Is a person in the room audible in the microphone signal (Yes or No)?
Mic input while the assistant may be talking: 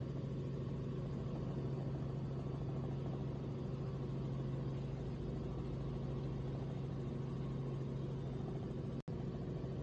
No